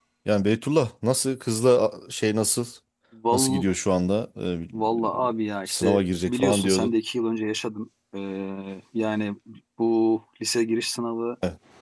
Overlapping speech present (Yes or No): Yes